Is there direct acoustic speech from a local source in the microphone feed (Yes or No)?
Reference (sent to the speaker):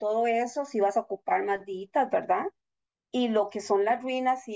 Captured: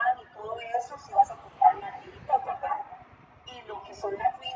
No